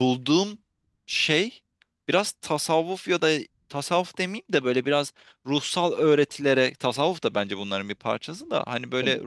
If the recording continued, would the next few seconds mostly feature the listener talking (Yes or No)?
No